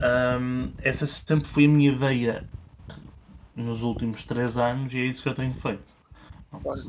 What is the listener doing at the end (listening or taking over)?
taking over